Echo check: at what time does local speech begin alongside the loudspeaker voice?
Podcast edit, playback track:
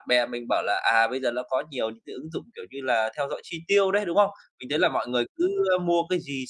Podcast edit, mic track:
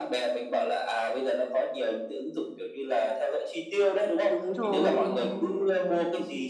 4.3 s

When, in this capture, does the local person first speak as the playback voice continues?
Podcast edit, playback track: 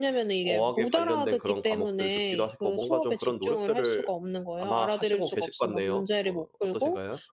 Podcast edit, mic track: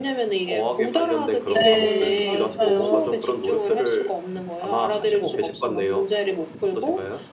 1.6 s

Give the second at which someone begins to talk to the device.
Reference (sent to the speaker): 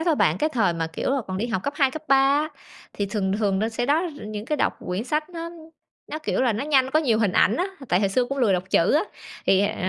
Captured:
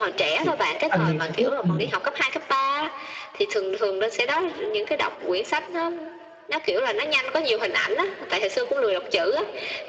0.4 s

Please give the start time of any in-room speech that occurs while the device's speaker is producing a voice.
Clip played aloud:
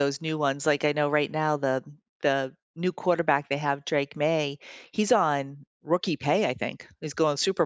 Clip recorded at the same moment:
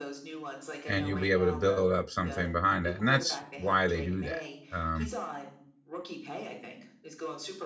0.8 s

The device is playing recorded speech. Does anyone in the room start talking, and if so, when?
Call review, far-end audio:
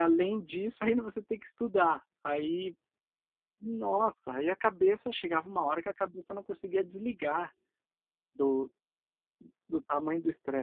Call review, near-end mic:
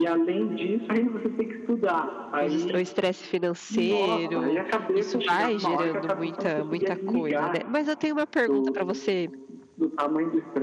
2.4 s

